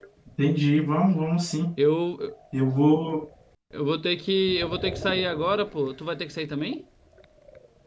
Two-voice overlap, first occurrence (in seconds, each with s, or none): none